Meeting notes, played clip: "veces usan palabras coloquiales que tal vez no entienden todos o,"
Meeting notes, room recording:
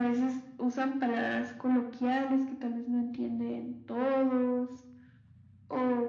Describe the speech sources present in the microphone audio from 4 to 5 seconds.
echo only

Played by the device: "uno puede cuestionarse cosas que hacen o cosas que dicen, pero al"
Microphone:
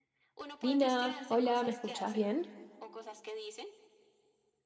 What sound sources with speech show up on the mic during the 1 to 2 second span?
both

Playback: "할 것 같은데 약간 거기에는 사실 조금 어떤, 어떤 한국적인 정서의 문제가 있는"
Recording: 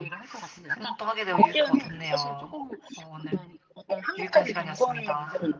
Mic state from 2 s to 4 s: both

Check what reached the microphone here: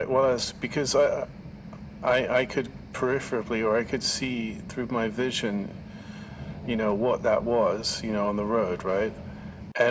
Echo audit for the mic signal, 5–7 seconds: echo only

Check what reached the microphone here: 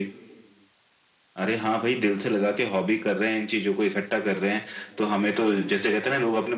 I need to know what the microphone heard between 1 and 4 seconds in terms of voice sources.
echo only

